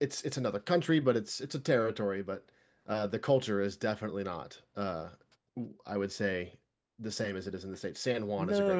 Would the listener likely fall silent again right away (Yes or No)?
No